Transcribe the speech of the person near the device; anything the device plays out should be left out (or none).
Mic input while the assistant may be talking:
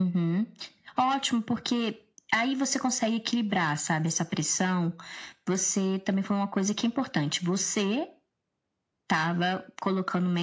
none